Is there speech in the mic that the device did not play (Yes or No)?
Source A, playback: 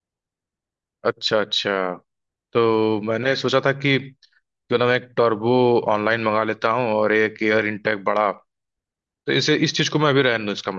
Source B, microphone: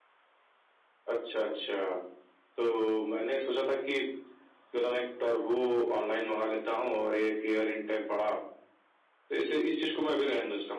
No